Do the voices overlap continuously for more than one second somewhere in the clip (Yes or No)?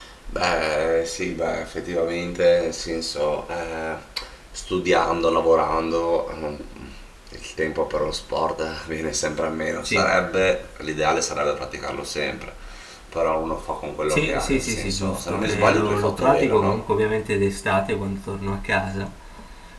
Yes